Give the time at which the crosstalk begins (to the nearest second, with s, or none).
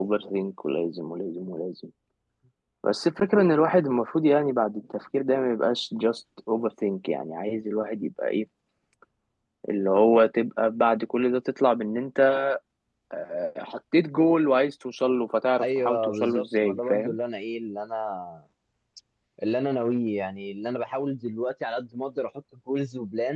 16 s